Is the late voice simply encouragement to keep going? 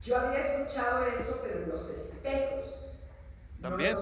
No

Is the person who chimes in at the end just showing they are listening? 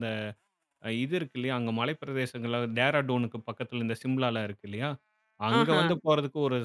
Yes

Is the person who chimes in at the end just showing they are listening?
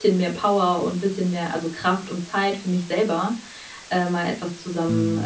Yes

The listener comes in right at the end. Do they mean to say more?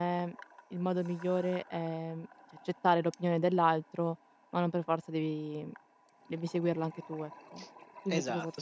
Yes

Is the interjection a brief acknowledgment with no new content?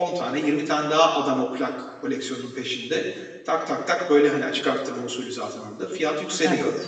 Yes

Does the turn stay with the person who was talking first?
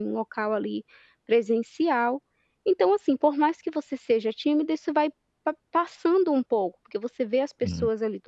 Yes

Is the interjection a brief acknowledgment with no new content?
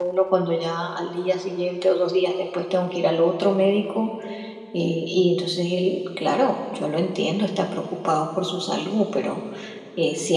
Yes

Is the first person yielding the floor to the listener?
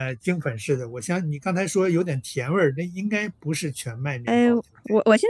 Yes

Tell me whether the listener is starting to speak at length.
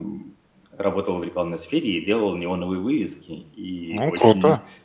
No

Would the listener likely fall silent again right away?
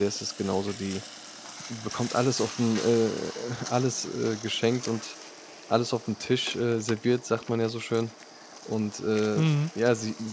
Yes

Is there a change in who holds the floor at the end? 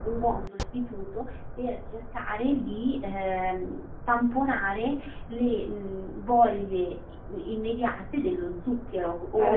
Yes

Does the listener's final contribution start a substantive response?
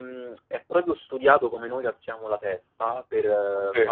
No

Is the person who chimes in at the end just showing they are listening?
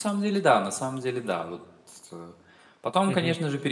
Yes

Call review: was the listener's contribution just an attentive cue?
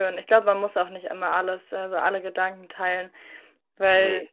Yes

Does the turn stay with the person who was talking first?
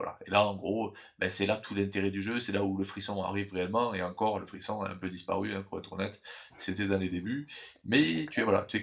Yes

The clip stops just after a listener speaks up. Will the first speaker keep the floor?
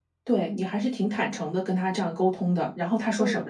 No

